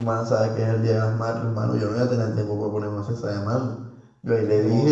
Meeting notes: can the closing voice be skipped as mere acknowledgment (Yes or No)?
Yes